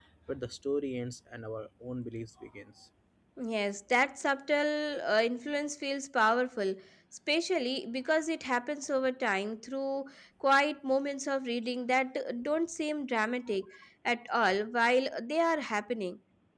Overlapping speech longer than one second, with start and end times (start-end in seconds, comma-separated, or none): none